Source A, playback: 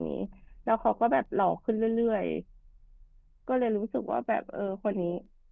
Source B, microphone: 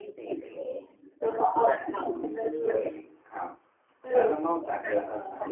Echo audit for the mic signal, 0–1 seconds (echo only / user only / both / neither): echo only